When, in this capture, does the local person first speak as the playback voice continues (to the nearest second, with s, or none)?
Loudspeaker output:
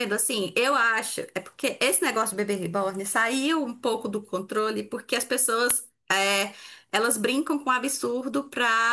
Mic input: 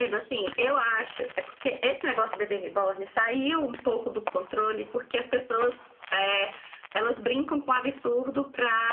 none